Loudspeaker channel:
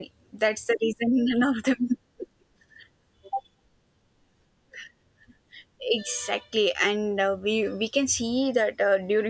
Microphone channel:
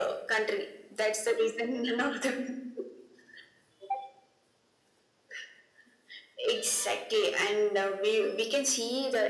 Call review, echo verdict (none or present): present